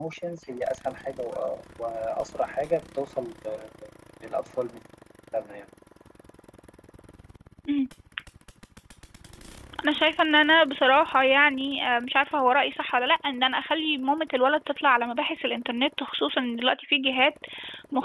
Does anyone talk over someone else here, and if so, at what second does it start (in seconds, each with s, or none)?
none